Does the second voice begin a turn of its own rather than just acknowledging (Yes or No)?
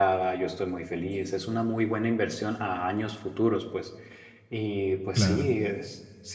No